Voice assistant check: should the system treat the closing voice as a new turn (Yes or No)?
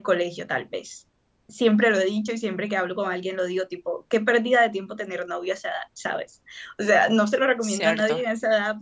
No